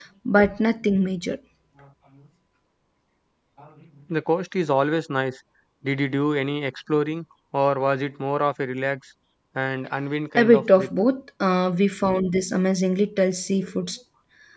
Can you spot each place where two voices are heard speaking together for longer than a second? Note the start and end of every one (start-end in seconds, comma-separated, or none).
none